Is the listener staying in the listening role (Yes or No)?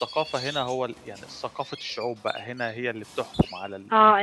No